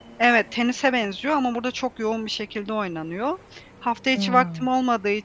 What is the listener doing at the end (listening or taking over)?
listening